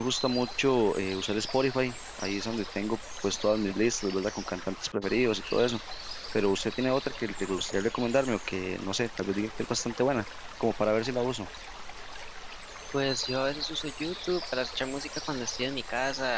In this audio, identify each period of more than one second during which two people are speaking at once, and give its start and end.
none

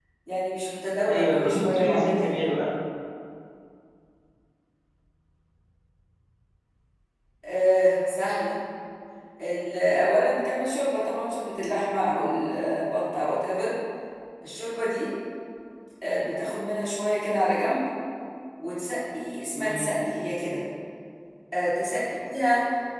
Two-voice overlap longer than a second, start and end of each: 1.1-2.4

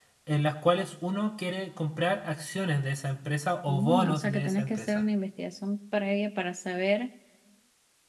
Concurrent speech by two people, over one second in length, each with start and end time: 3.7-5.0

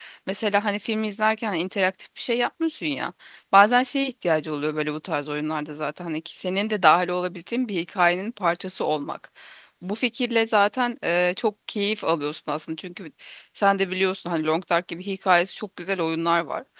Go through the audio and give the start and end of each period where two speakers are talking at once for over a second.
none

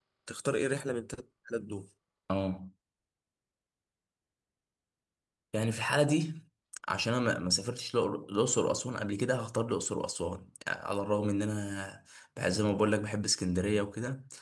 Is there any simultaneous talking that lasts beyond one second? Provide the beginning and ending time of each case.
none

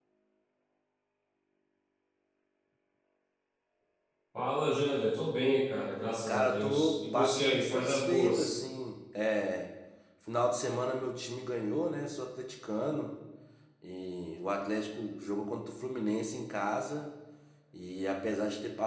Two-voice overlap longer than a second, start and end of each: 6.3-8.5

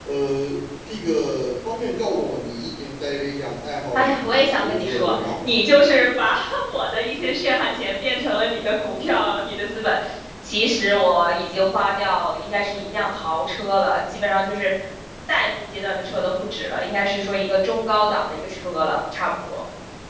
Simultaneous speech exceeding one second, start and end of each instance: 4.0-5.6

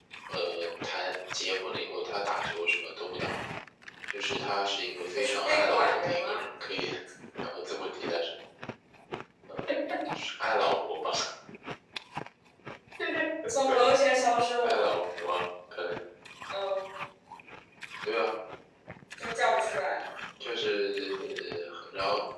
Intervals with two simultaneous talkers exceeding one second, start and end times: 5.2-6.5

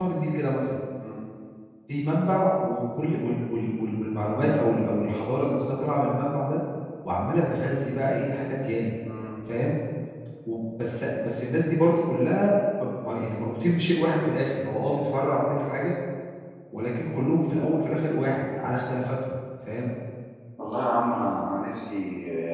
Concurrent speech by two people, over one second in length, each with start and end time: none

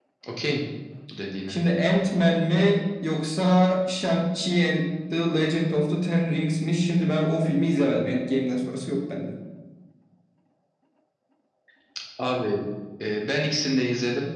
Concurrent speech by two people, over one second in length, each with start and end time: none

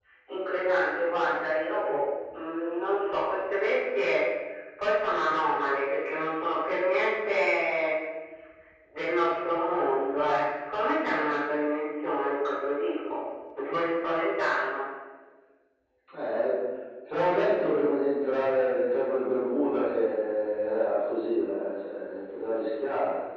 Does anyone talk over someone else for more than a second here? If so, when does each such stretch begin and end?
none

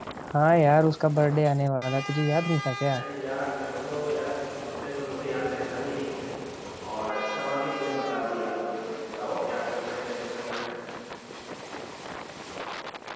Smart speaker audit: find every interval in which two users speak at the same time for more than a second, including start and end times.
none

